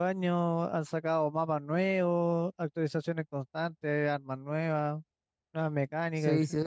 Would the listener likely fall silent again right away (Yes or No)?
No